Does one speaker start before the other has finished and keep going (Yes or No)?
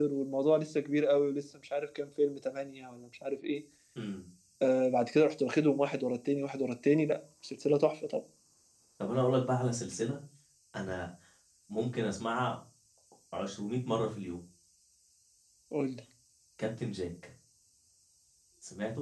No